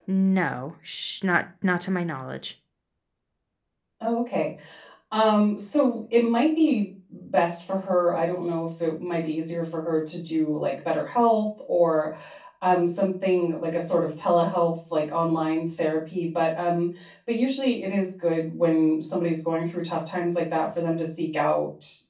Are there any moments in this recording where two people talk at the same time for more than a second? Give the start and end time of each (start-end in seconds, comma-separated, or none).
none